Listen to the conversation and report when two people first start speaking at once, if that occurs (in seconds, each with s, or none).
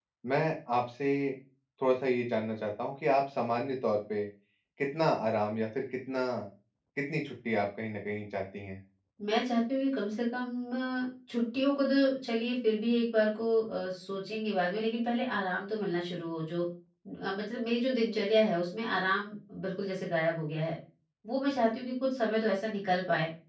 none